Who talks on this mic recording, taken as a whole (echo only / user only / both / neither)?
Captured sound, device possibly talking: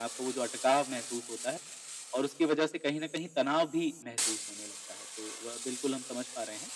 echo only